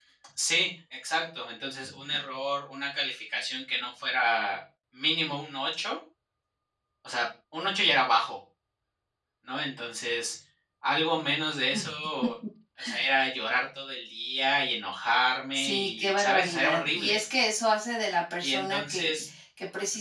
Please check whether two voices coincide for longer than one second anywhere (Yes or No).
Yes